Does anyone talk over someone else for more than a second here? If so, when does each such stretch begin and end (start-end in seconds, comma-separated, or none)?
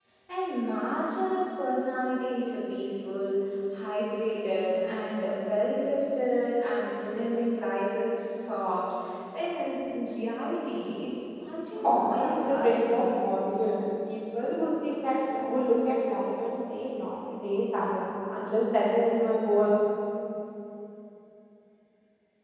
11.8-13.0